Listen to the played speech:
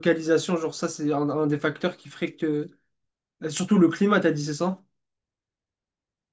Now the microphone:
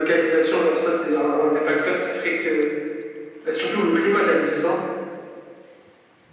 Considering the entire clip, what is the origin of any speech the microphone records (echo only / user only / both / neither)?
echo only